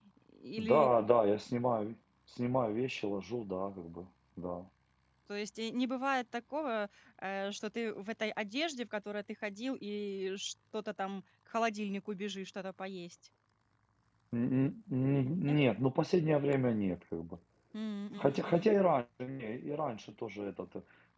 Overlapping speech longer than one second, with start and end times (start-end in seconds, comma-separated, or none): none